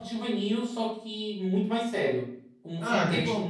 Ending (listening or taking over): taking over